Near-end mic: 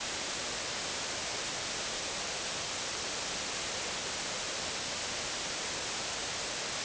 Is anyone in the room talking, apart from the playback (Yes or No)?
No